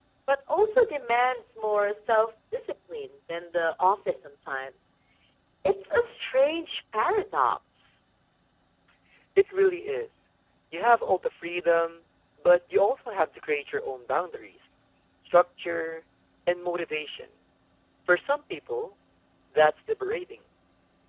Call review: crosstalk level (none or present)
none